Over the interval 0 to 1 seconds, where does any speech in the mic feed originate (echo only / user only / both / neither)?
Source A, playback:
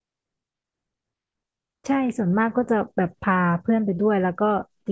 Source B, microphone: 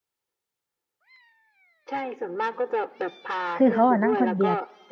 neither